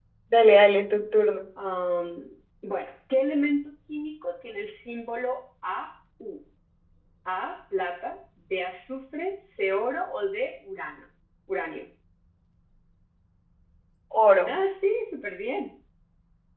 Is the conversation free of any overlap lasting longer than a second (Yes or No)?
Yes